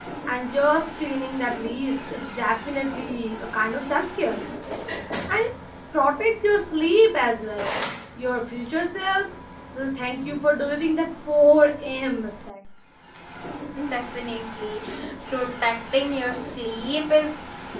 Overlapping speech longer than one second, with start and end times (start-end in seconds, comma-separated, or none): none